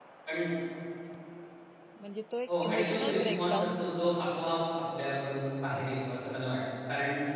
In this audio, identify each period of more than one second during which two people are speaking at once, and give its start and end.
2.5-4.2

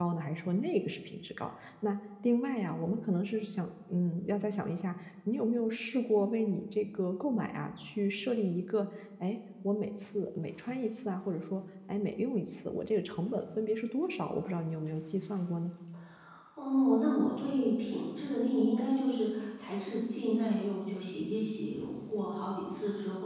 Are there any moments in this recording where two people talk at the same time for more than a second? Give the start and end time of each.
none

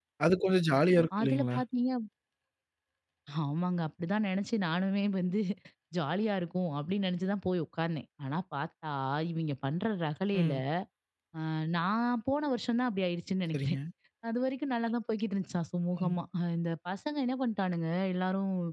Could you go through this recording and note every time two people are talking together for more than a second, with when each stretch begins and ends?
none

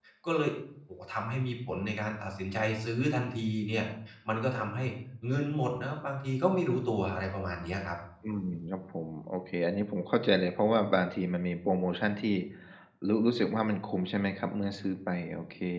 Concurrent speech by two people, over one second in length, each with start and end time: none

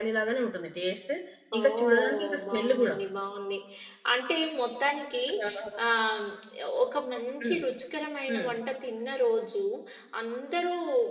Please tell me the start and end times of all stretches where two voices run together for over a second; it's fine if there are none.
1.6-3.0

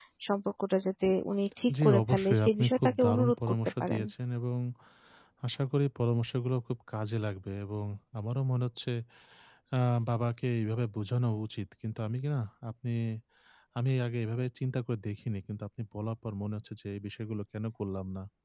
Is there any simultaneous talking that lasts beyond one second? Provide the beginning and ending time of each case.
1.8-4.0

